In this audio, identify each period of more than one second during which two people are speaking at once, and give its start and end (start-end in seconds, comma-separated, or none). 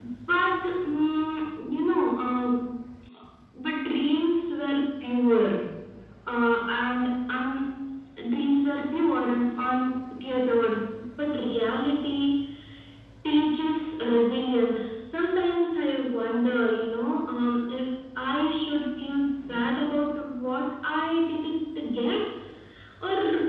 none